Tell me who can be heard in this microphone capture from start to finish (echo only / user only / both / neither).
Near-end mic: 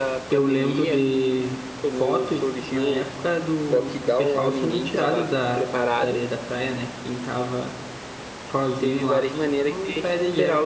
both